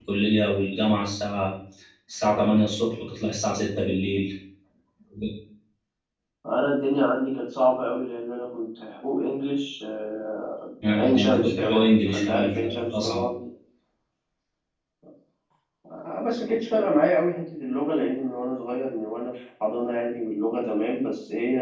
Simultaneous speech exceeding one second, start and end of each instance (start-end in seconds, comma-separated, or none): 10.9-13.2